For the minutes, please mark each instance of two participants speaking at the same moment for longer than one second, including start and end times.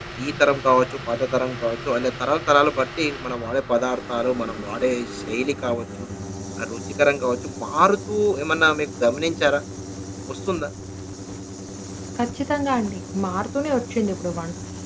none

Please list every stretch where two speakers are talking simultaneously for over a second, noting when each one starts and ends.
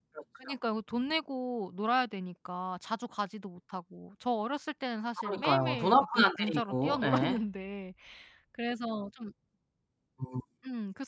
5.2-7.4

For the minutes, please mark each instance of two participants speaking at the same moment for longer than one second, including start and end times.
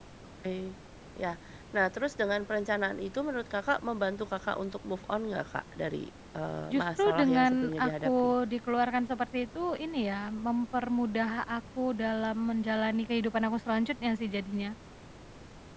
6.7-8.3

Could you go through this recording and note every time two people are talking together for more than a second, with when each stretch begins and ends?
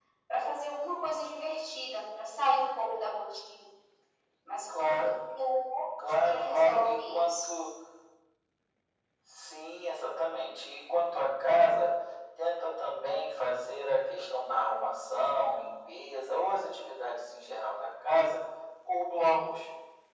6.1-7.5

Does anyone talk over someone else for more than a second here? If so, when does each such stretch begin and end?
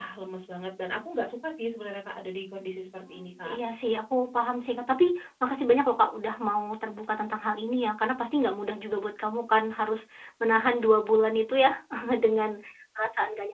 none

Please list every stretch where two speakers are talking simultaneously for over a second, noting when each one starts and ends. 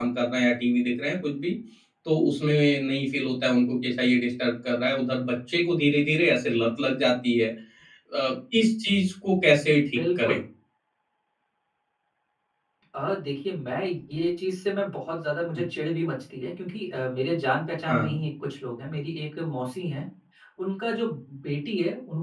none

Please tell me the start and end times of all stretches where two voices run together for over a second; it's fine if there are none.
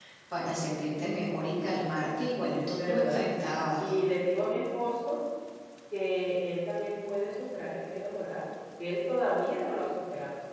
2.5-3.9

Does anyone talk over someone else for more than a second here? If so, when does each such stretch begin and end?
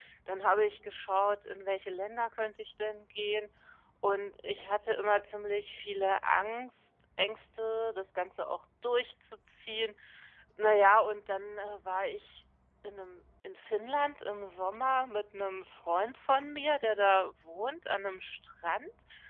none

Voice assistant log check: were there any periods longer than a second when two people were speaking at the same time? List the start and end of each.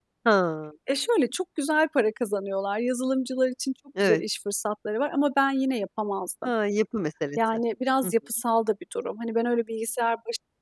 none

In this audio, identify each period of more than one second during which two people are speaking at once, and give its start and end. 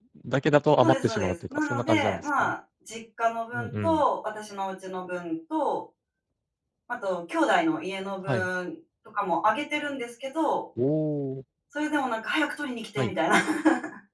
0.8-2.5

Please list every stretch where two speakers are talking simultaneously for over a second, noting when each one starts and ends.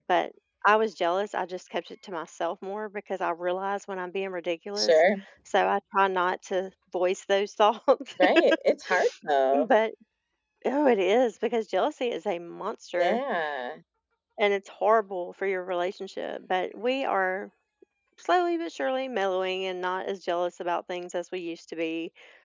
none

